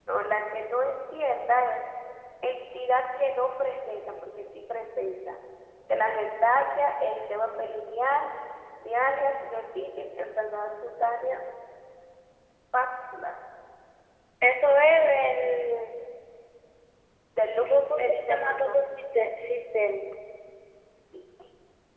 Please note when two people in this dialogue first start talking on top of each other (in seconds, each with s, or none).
17.7 s